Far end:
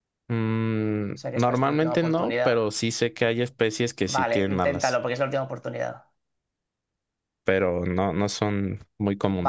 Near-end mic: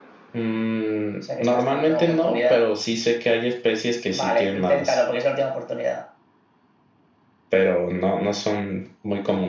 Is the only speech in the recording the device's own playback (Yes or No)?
Yes